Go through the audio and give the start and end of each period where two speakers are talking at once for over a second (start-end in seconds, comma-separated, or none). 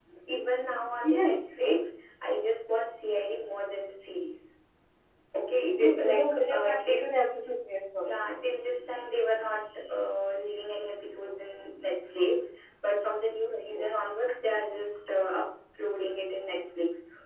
5.8-7.0